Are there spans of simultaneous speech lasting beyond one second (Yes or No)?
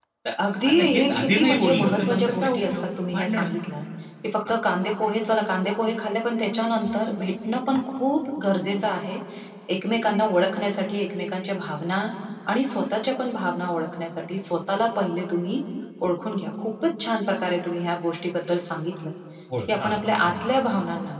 Yes